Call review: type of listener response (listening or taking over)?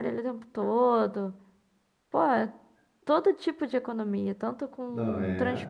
listening